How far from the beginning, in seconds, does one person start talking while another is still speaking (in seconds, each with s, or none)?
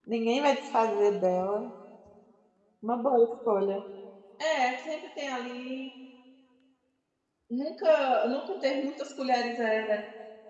none